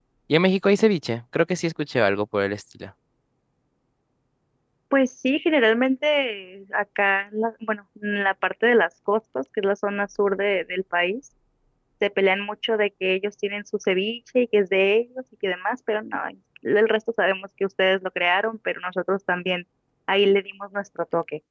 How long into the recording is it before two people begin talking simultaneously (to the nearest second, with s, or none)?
none